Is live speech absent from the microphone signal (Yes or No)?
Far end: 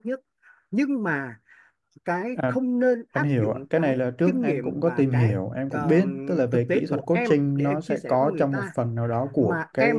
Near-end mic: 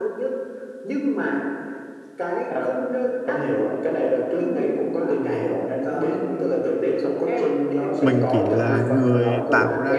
No